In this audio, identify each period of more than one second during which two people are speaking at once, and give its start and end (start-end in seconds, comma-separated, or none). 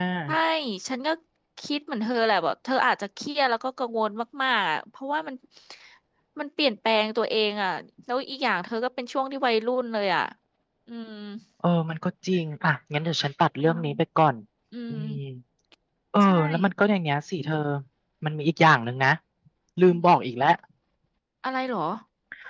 none